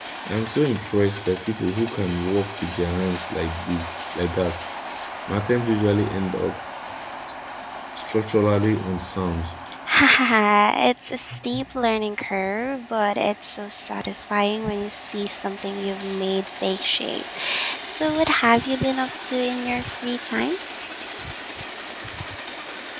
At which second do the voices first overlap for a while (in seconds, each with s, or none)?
none